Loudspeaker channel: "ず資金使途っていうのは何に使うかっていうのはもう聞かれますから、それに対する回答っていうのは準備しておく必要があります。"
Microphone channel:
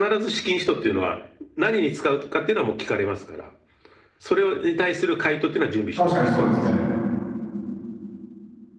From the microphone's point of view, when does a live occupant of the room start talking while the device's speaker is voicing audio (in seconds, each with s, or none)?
5.9 s